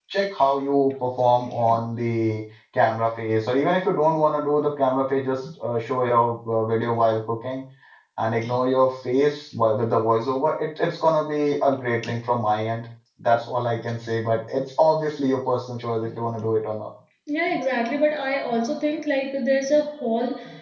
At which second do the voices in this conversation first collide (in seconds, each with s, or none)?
none